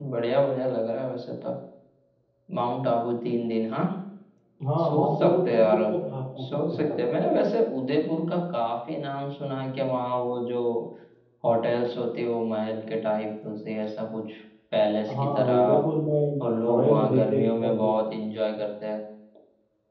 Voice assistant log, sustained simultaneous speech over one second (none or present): present